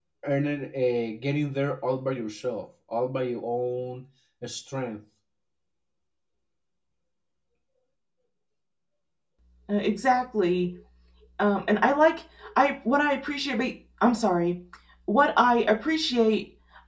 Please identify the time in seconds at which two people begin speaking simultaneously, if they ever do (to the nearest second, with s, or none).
none